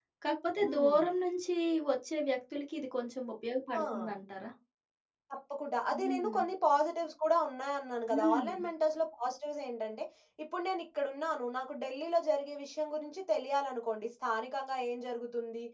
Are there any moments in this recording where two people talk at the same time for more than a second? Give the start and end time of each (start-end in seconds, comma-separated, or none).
none